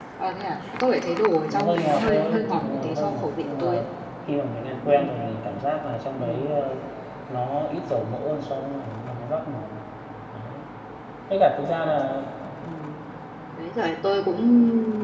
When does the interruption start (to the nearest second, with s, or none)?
2 s